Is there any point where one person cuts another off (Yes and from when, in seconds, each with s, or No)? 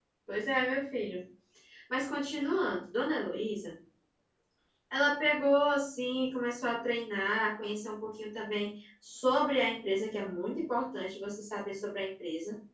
No